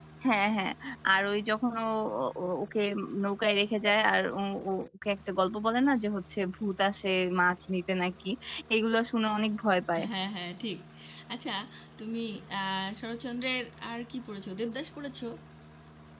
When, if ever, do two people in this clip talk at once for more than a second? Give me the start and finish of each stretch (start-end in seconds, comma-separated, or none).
none